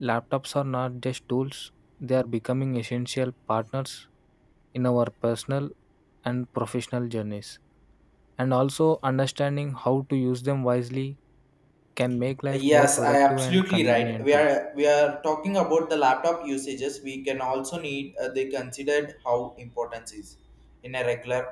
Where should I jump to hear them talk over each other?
12.5 s

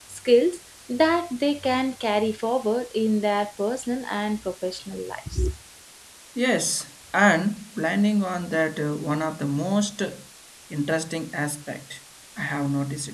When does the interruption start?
none

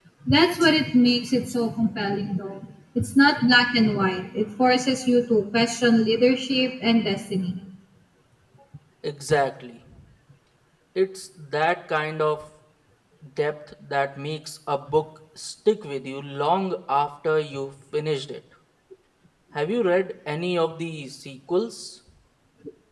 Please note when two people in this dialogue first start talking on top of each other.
none

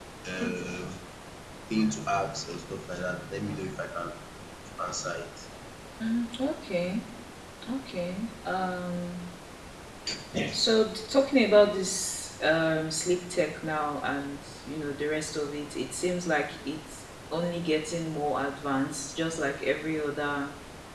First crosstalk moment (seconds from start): none

